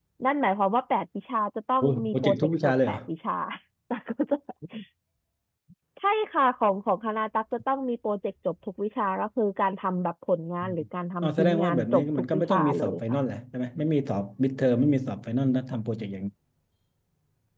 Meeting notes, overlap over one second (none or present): present